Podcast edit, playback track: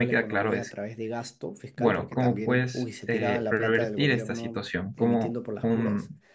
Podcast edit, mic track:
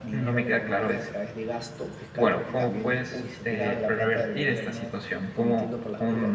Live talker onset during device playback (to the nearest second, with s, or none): none